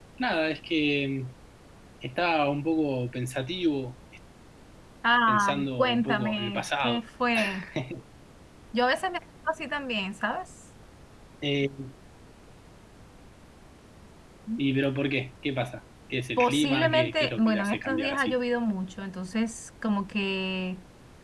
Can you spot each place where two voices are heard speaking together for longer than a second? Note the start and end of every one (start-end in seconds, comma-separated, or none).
5.3-7.0, 16.4-18.4